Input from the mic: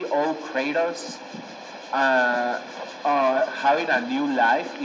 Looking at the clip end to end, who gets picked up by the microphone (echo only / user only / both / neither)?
echo only